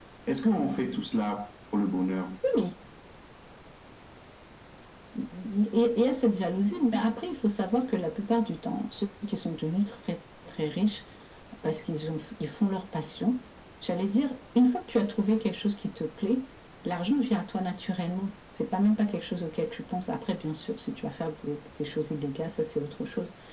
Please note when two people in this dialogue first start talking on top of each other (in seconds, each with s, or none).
none